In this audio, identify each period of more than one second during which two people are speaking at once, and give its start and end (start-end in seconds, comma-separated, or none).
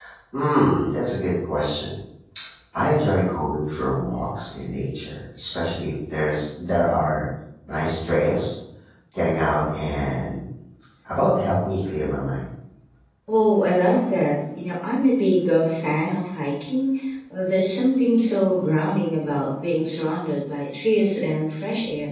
none